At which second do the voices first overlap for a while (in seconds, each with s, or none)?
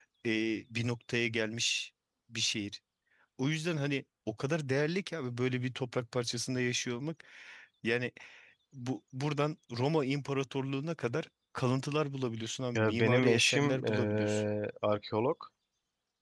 12.8 s